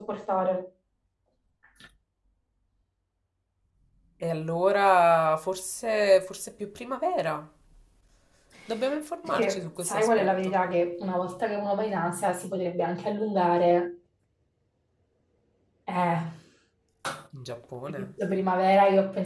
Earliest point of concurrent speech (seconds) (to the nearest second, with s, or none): 9 s